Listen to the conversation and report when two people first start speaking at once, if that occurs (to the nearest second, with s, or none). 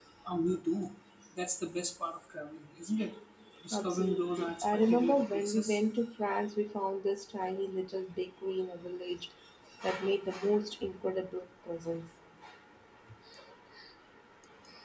4 s